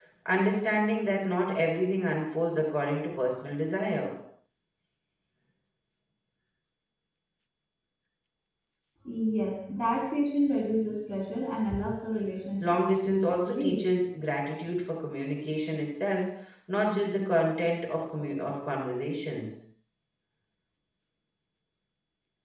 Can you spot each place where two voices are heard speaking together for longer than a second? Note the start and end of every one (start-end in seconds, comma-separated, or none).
12.6-13.8